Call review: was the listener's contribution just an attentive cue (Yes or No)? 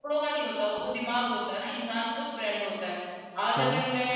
Yes